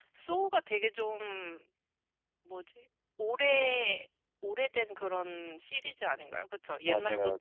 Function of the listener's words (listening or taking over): taking over